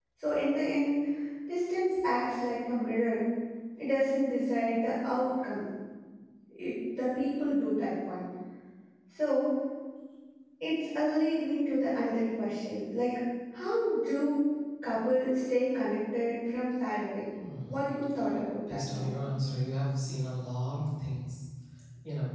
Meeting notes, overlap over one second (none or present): none